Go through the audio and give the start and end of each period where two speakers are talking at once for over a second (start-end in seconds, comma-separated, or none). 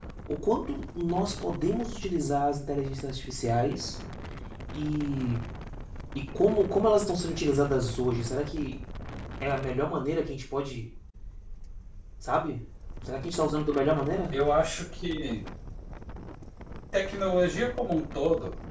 none